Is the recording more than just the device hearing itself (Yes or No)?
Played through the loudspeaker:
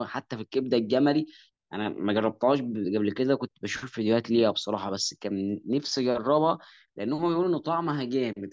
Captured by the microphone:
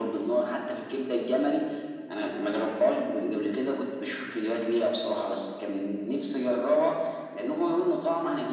No